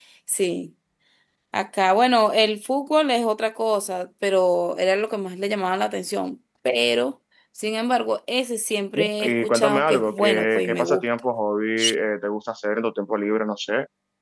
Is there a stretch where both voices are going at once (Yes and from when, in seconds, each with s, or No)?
Yes, from 8.9 s